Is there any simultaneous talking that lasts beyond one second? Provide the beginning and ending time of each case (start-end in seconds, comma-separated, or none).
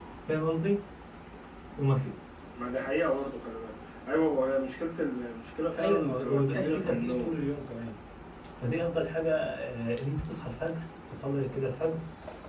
5.8-7.3